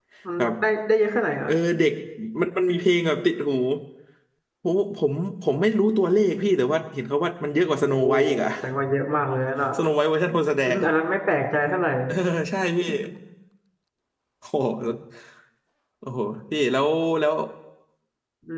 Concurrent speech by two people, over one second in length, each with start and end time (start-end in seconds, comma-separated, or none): none